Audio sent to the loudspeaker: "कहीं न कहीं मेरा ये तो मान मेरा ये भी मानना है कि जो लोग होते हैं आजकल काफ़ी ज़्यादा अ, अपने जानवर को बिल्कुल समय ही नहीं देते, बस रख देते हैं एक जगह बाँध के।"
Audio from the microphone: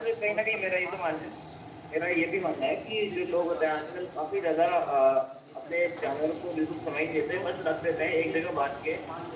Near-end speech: present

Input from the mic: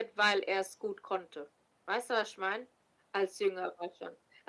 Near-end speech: none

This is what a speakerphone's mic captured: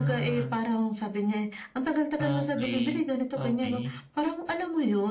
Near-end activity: none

